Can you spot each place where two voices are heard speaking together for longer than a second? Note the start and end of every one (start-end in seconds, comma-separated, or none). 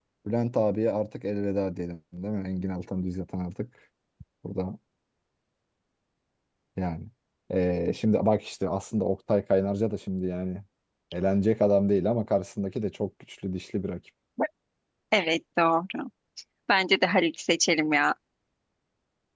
none